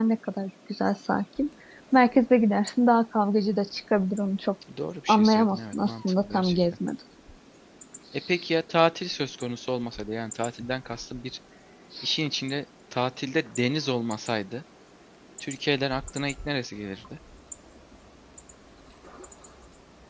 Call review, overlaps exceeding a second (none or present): present